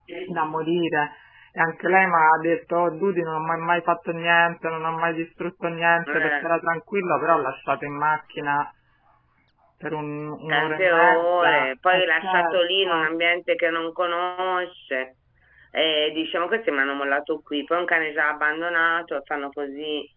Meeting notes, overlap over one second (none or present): present